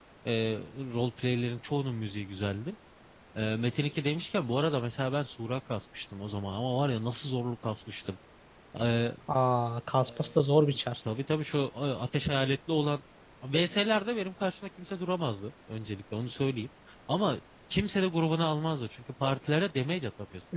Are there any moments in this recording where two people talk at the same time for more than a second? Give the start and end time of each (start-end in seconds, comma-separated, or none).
none